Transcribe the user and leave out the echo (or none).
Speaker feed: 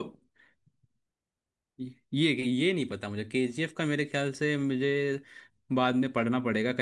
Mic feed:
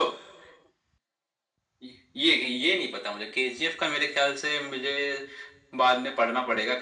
none